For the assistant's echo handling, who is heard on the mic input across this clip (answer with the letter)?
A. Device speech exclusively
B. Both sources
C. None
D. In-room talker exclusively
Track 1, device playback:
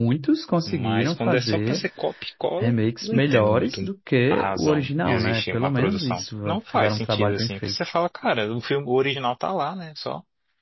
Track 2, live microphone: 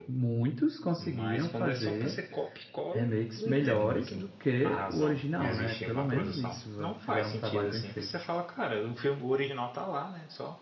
A